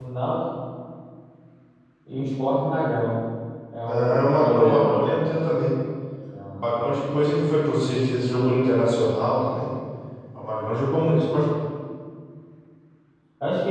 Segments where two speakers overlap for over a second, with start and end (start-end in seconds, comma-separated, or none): 3.9-5.1